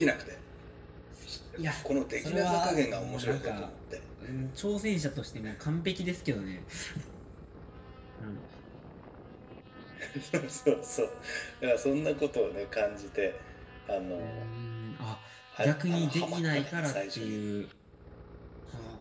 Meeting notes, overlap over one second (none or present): present